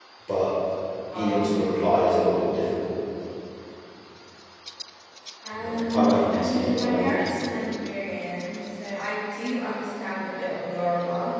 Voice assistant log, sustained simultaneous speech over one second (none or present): present